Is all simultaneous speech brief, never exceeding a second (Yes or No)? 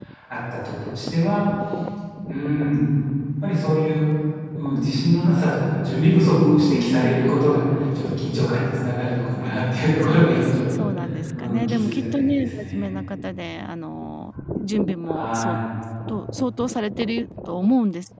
No